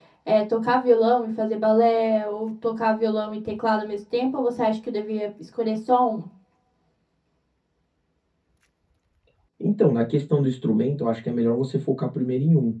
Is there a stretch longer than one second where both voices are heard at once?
No

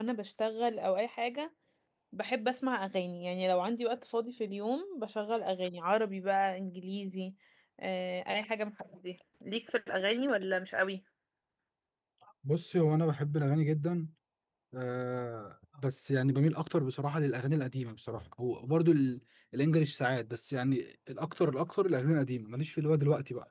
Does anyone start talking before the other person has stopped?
No

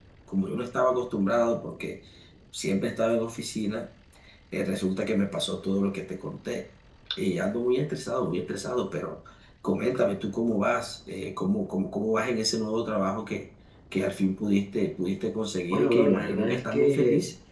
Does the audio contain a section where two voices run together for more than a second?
Yes, from 15.7 s

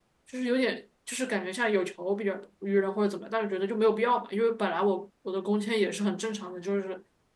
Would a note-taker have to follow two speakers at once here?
No

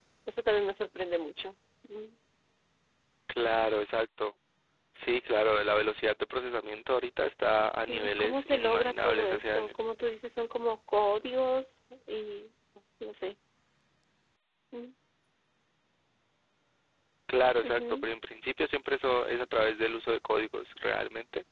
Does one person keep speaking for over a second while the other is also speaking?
Yes, from 7.7 s

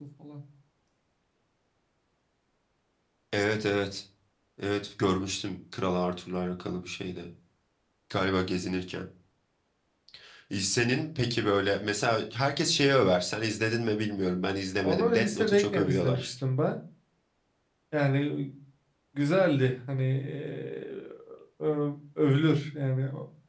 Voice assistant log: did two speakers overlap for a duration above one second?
Yes, from 14.8 s

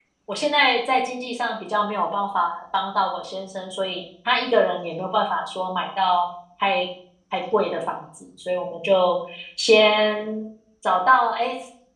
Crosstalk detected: No

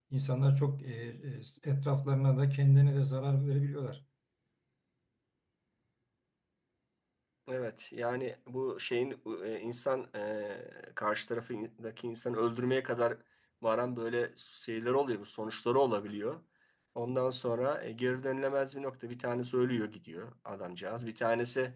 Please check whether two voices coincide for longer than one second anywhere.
No

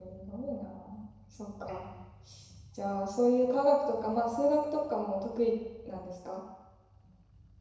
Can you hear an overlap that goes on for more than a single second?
No

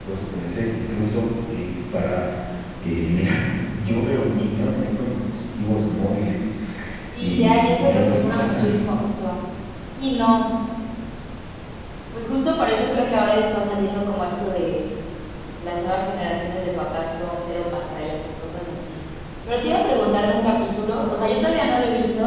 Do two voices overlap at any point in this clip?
Yes, from 7.2 s

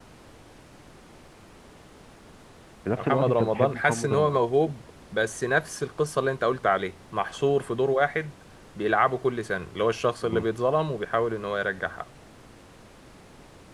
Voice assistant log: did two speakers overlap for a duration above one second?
Yes, from 3.0 s

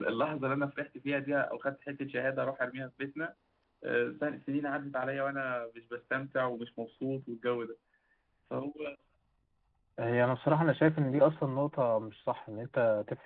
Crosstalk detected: No

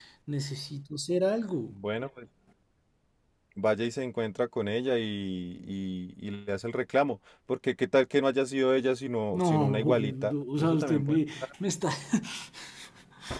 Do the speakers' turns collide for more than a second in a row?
Yes, from 9.3 s

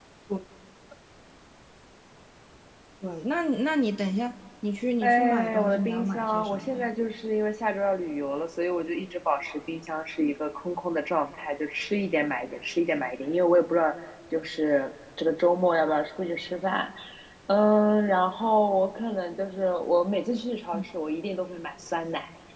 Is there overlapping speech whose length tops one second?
Yes, from 5.0 s

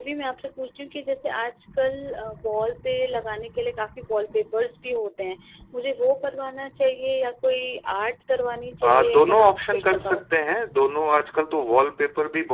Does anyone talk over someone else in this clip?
Yes, from 8.8 s

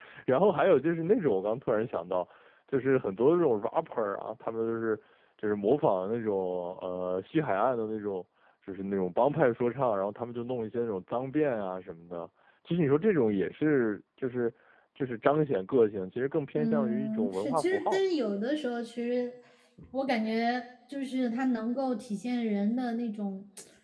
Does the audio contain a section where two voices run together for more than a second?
Yes, from 16.5 s

